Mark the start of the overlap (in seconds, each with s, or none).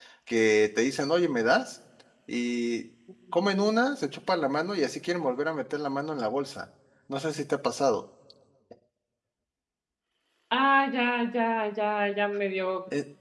none